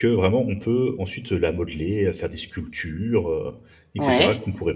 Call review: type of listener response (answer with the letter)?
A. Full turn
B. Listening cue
B